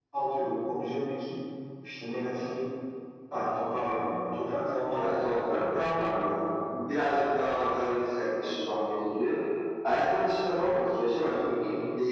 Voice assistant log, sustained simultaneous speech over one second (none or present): present